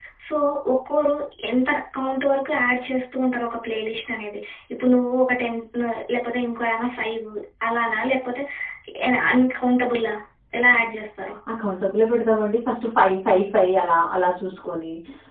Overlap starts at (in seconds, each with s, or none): none